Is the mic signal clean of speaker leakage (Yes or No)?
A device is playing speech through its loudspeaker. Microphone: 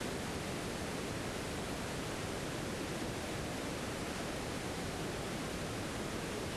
Yes